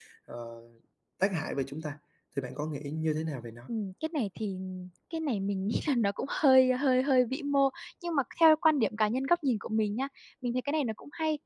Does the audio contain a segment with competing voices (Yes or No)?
No